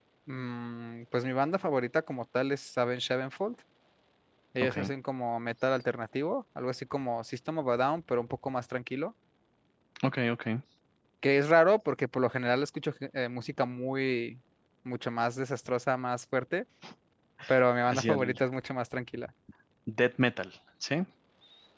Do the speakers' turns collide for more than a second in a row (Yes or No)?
No